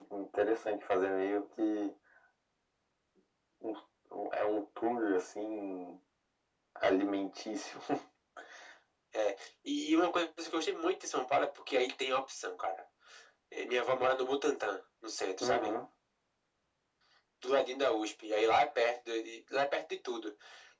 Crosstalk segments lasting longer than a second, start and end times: none

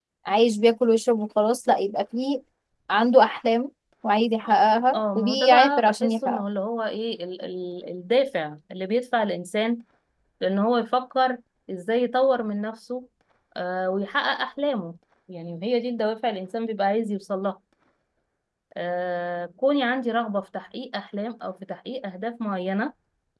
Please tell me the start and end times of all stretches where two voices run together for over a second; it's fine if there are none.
4.9-6.4

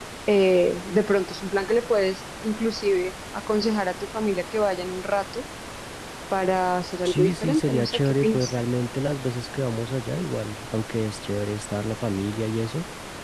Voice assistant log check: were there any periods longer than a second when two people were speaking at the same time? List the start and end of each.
7.0-8.5

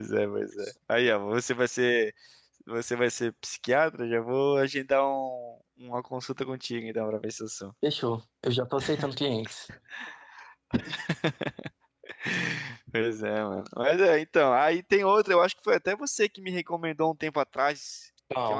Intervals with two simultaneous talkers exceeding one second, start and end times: none

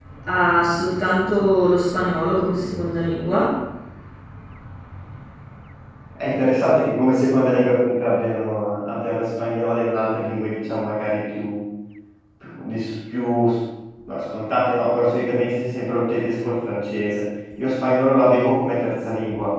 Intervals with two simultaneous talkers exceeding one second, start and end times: none

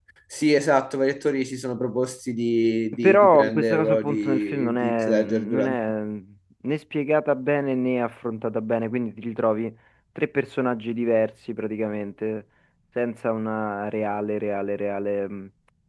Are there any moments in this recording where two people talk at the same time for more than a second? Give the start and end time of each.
3.0-5.8

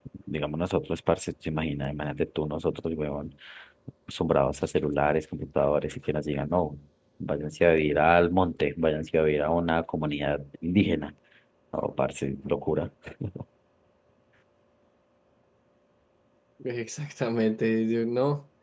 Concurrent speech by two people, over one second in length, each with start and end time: none

